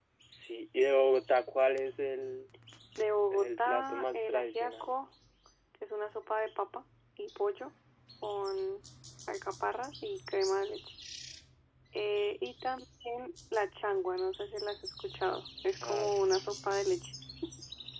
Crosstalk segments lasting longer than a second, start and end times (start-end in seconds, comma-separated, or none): 3.3-4.9